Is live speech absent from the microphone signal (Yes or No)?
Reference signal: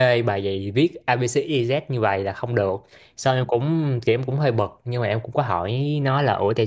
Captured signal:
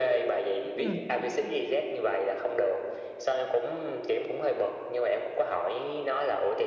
No